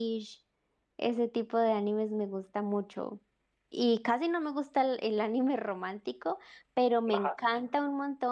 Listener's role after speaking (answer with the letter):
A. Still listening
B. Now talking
A